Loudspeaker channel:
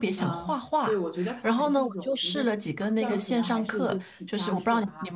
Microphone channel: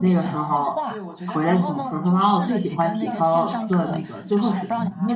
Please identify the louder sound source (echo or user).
user